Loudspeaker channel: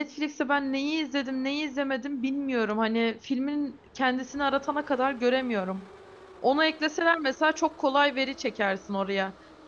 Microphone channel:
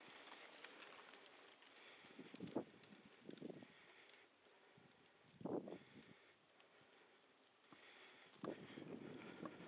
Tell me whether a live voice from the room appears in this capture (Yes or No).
No